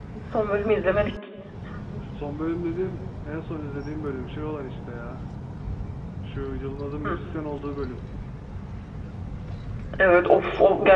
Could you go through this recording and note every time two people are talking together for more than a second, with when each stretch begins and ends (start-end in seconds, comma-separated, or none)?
none